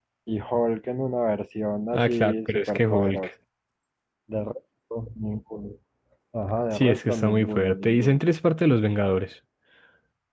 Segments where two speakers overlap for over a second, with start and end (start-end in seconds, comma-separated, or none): 1.9-3.3, 6.8-8.2